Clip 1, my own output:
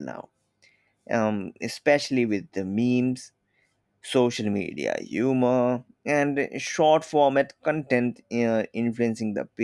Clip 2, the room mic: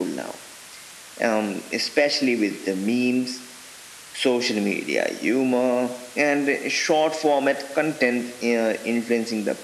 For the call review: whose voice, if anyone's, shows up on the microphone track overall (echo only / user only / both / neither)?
echo only